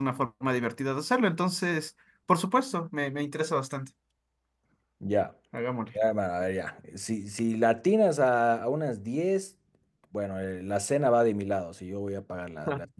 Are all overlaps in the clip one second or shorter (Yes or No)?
Yes